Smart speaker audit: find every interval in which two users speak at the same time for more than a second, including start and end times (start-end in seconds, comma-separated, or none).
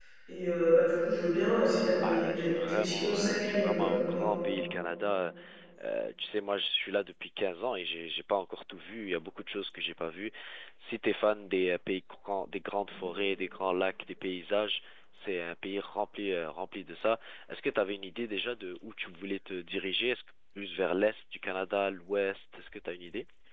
2.0-4.2